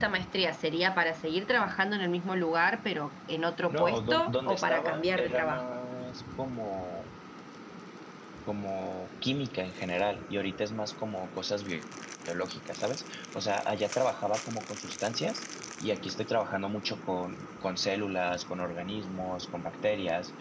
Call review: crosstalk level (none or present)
present